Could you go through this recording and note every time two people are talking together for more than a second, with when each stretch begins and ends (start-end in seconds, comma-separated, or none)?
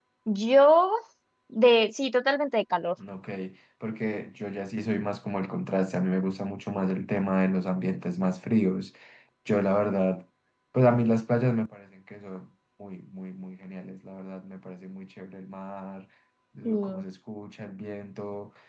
none